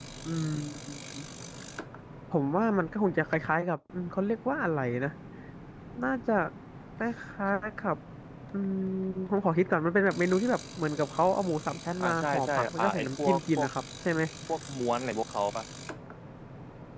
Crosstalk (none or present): present